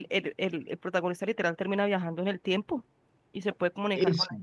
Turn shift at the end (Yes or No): No